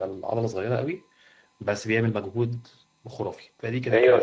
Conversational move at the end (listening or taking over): taking over